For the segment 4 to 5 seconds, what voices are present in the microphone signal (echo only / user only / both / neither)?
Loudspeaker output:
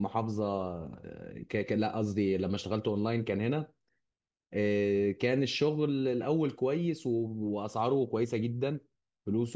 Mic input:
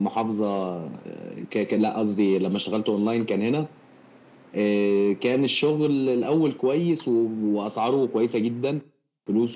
echo only